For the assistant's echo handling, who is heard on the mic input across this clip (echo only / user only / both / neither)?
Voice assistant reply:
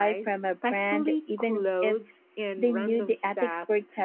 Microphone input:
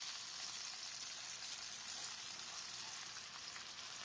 neither